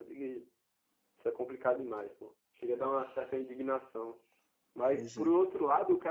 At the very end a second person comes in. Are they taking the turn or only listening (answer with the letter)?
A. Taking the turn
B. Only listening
B